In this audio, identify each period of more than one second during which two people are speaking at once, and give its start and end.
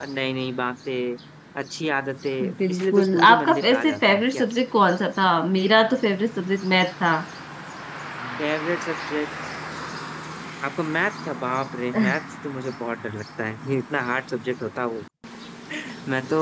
2.7-4.5

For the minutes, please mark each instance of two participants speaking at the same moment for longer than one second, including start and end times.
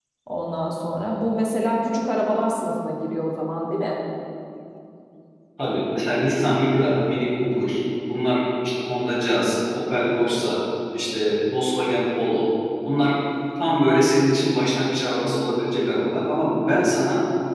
none

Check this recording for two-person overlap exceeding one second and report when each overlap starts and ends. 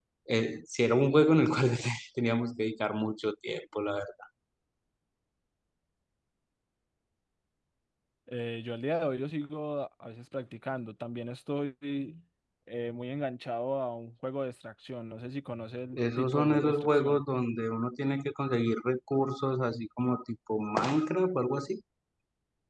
15.9-17.2

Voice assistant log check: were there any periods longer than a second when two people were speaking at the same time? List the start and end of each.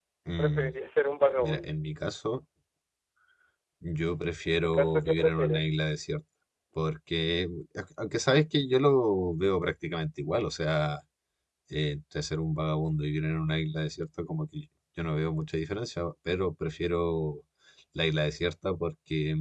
4.5-5.7

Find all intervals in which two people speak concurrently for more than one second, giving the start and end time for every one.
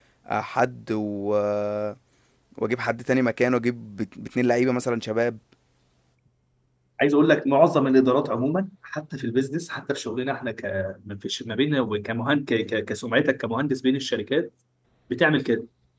none

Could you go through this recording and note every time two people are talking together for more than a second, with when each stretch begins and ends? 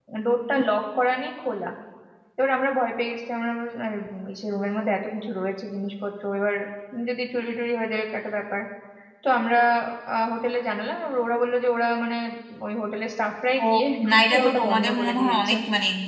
14.1-15.5

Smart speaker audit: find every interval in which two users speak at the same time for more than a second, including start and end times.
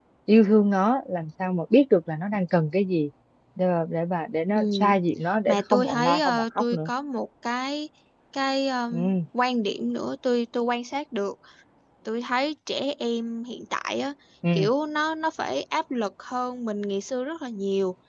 5.5-6.9

